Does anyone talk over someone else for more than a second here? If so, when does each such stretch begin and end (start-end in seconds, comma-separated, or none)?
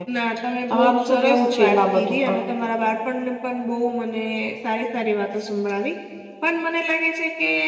0.7-2.4